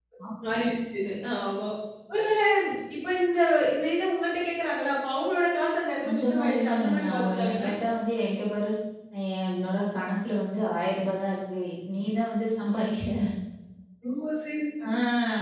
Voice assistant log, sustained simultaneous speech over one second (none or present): present